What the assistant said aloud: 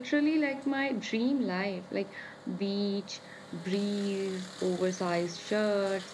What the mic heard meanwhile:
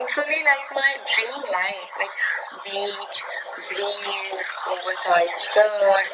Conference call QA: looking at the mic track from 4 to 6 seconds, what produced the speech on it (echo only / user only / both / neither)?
echo only